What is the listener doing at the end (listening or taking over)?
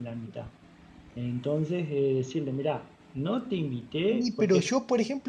taking over